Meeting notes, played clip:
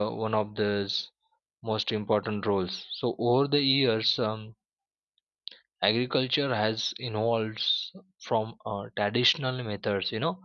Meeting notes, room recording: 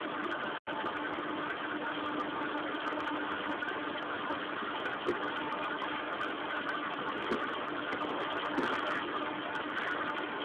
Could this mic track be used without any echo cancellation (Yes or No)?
Yes